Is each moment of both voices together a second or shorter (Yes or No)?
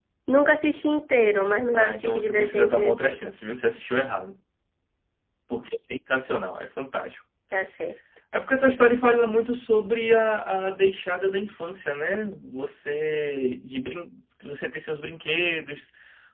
No